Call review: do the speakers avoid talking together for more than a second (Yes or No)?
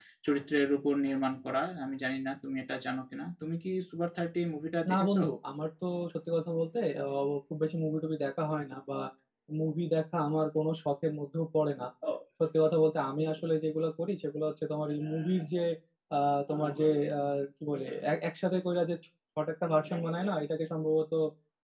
Yes